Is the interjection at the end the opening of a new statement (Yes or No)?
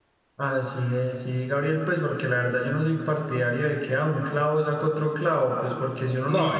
No